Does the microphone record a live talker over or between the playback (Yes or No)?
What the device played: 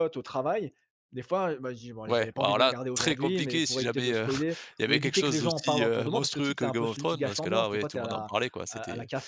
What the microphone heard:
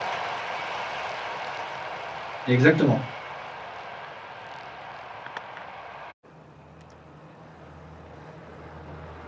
Yes